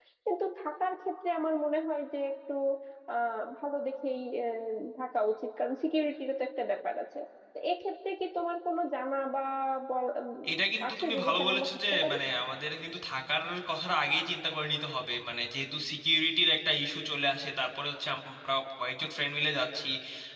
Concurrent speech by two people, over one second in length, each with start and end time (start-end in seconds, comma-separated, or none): 10.9-12.1